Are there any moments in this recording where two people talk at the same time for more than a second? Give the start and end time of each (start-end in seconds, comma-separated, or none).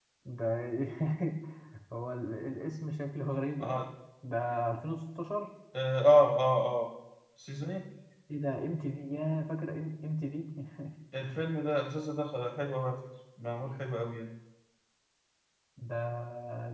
none